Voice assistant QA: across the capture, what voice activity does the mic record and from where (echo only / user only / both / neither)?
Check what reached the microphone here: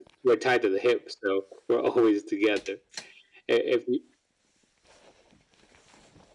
echo only